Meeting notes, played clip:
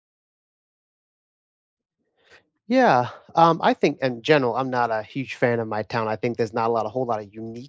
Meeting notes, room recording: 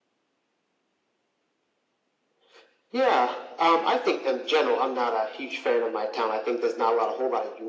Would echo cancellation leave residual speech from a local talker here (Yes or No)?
No